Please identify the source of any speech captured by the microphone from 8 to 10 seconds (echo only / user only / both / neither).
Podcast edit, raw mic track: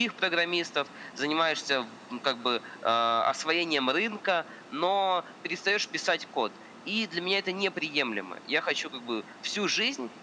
echo only